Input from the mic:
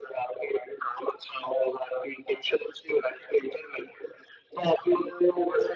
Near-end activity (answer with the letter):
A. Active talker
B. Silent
B